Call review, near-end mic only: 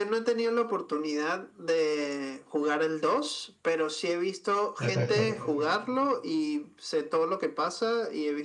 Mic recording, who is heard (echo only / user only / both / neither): both